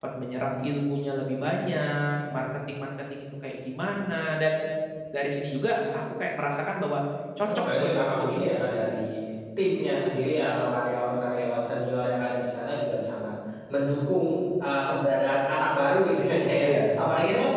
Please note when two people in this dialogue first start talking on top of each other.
7.4 s

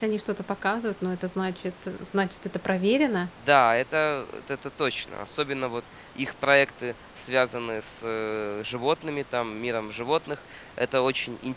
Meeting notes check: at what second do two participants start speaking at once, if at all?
none

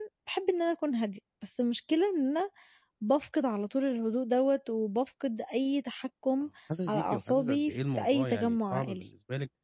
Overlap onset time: 6.9 s

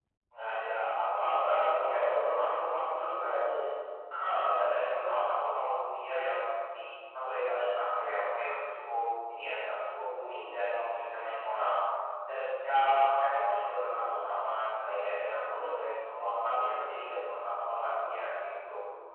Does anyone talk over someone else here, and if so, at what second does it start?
1.8 s

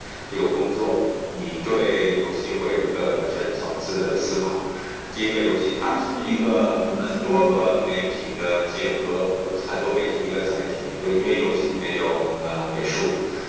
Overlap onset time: 5.9 s

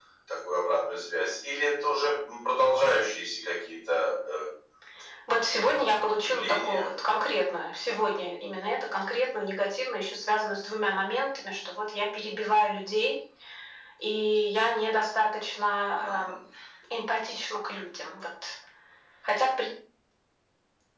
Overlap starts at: 5.6 s

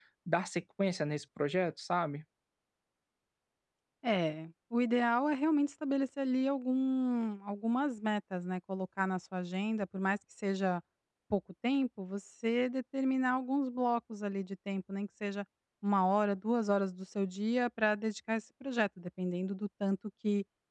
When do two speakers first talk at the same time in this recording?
none

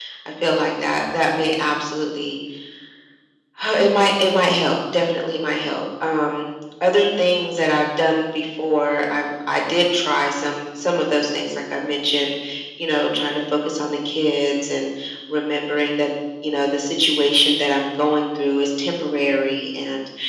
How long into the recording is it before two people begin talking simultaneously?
none

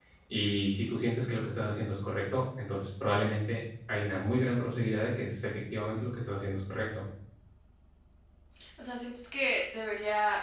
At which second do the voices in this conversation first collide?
none

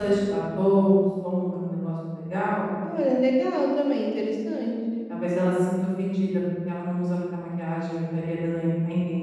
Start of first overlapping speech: none

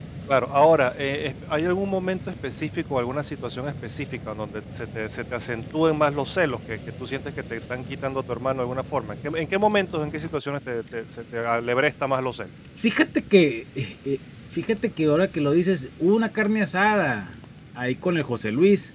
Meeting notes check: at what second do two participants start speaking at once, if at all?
none

